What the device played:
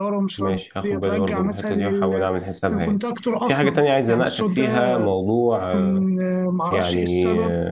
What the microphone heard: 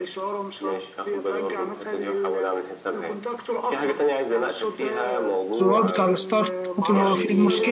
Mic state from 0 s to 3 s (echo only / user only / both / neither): echo only